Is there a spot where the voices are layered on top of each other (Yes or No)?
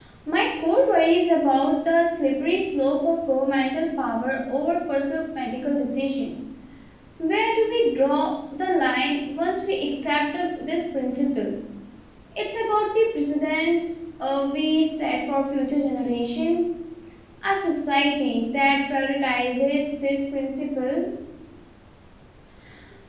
No